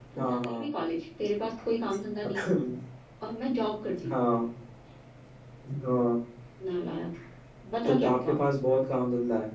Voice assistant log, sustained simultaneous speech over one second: none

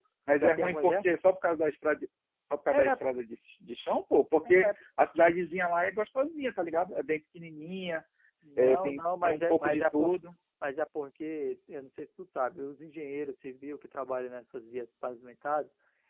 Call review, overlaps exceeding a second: present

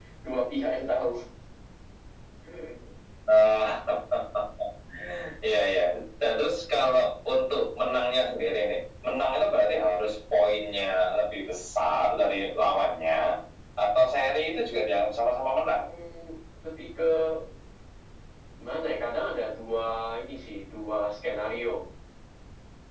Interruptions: none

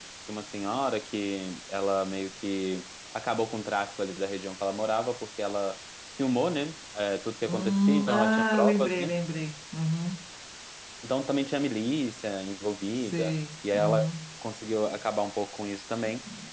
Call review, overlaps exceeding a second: present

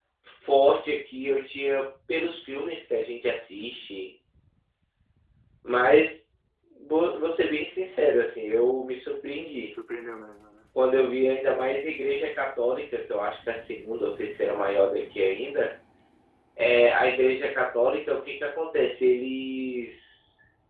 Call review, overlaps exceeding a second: none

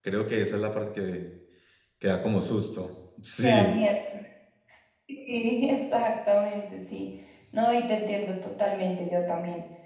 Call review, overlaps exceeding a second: none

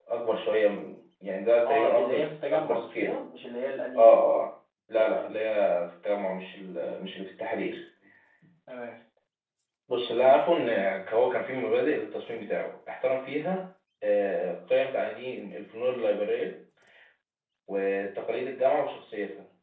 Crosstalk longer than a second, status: present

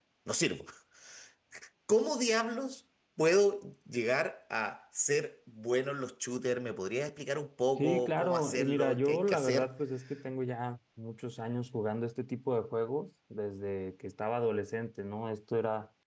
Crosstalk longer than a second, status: present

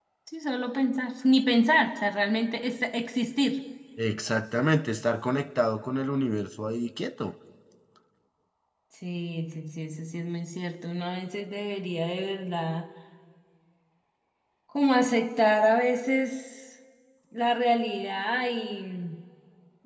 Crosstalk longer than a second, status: none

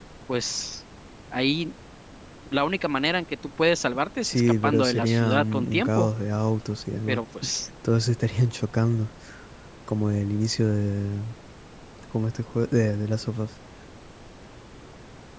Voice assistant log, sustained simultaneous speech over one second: present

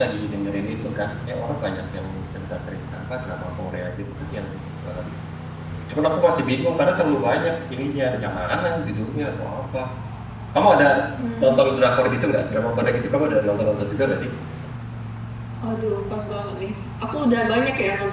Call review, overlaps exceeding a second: none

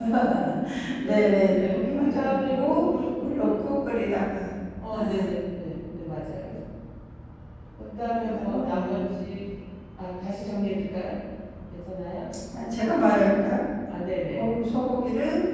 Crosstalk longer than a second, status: present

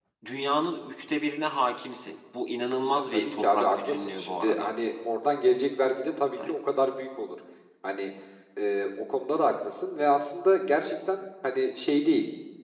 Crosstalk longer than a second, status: present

